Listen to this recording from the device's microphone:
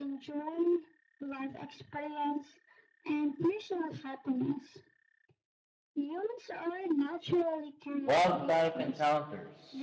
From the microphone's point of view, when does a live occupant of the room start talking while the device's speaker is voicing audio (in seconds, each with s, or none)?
8.0 s